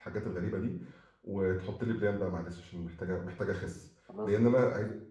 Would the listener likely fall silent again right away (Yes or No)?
Yes